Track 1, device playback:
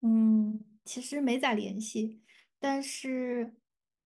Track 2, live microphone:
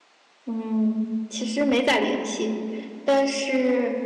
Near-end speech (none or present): none